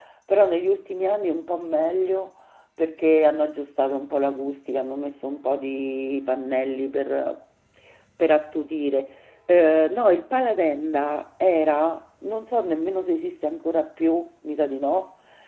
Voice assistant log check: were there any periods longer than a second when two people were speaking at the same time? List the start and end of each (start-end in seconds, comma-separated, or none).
none